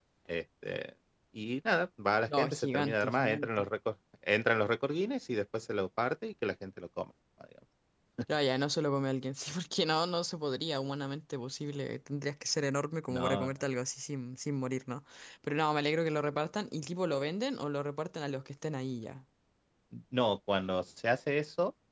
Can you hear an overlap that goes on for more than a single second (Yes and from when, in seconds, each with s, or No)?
Yes, from 2.3 s